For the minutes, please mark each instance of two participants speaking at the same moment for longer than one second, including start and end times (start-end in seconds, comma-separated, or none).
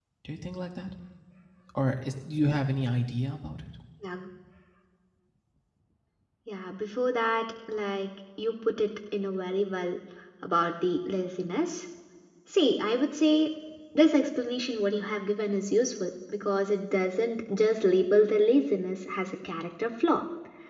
none